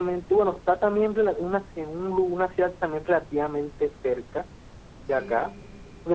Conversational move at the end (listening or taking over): listening